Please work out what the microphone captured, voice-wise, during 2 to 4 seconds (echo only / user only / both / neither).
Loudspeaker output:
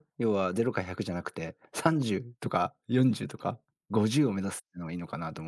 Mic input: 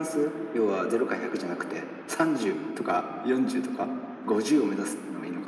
echo only